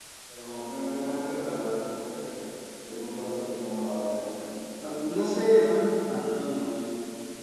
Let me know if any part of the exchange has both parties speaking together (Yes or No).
No